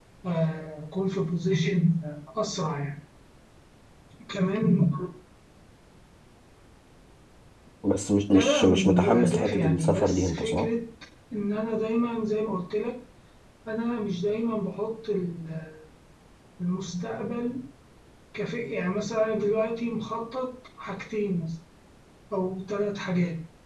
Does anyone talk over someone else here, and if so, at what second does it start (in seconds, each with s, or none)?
8.3 s